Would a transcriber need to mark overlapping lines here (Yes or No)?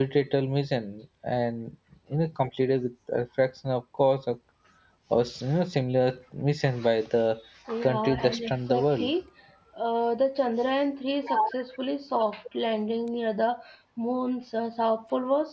Yes